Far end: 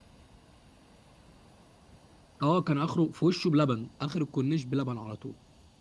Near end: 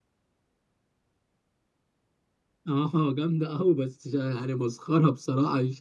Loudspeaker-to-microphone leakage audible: No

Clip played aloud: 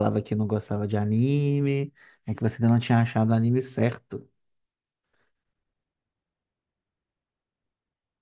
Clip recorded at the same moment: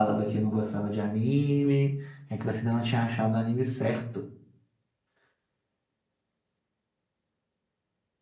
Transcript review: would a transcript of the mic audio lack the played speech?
No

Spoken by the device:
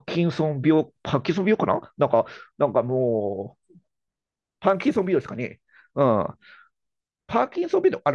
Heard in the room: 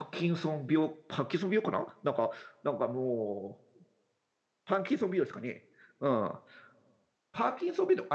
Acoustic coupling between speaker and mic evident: Yes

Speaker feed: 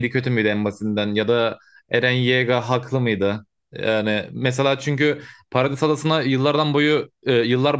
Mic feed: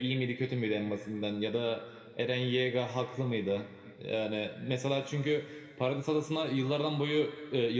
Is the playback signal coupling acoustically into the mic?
Yes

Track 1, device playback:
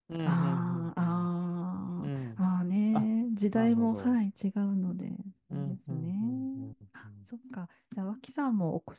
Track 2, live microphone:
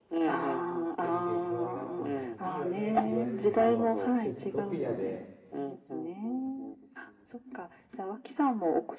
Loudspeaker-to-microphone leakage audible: Yes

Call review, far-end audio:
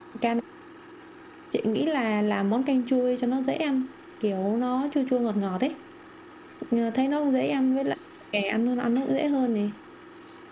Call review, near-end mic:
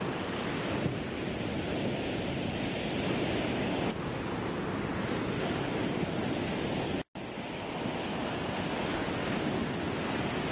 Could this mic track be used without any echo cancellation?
Yes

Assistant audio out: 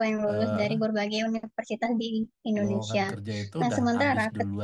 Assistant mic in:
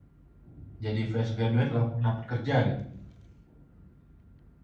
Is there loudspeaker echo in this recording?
No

